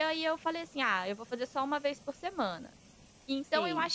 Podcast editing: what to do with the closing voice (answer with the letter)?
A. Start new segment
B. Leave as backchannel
B